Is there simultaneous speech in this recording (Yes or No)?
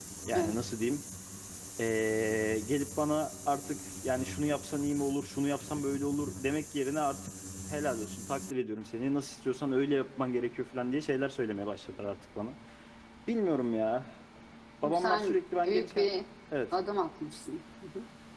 Yes